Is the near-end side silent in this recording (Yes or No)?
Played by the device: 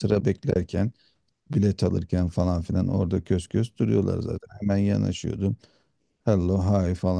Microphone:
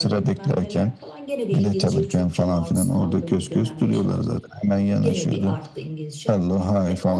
No